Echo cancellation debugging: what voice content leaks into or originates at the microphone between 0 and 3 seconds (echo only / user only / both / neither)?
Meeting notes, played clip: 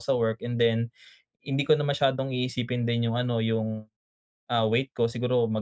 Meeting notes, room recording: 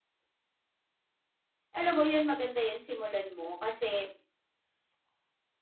user only